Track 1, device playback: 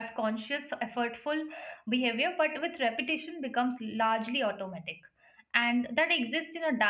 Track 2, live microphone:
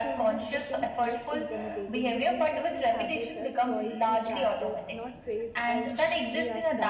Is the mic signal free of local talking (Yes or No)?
No